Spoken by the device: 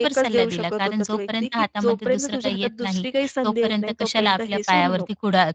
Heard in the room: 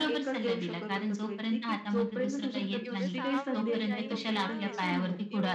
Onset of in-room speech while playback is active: 2.9 s

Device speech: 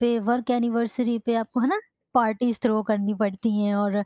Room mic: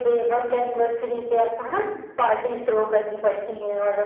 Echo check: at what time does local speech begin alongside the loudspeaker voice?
none

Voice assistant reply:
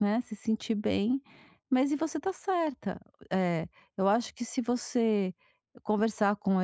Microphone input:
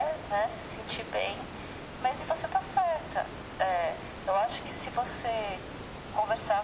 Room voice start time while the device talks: none

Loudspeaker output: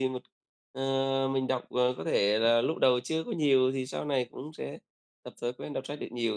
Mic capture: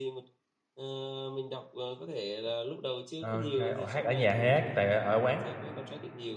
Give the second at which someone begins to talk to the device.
3.2 s

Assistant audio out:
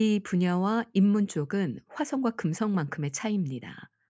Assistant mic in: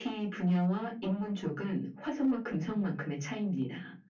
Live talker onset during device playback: none

